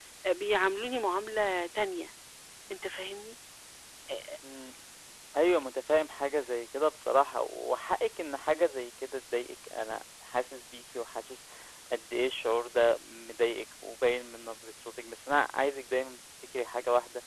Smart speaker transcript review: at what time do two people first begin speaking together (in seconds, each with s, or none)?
none